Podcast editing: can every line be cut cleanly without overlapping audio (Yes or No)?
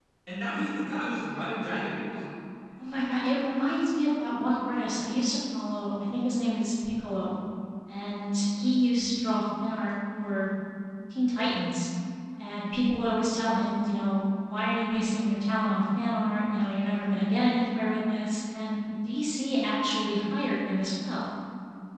Yes